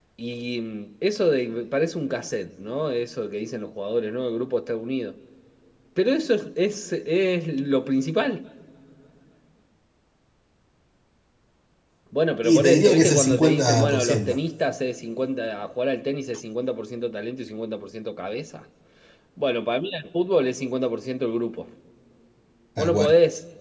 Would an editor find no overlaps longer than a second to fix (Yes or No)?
No